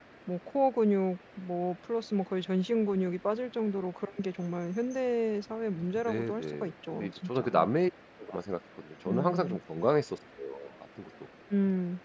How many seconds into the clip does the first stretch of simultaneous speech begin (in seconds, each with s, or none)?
6.0 s